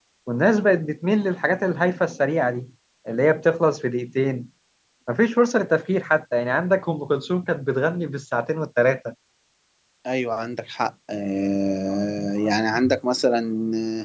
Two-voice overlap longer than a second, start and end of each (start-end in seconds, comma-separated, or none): none